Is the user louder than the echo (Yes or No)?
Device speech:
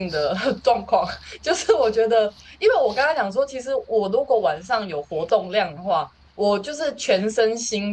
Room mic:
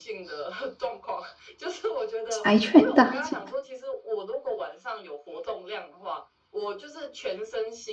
Yes